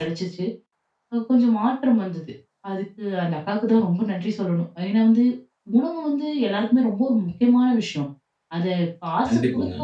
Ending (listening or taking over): listening